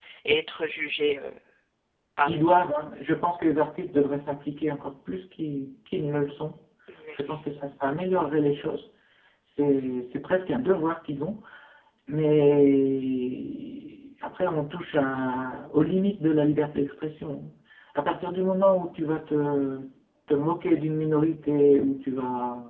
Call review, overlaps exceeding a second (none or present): none